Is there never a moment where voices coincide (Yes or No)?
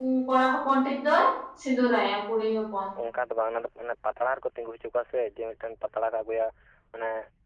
Yes